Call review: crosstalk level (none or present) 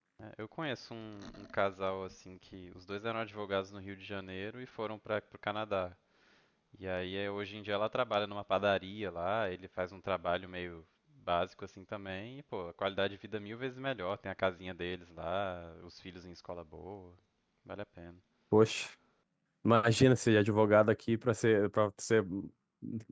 none